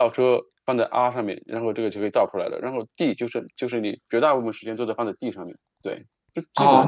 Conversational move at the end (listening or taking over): taking over